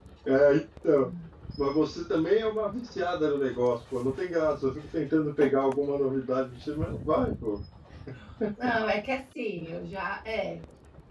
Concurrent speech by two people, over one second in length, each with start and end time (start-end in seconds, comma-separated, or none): none